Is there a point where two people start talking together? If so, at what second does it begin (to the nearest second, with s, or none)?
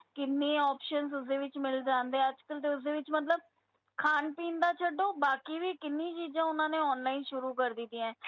none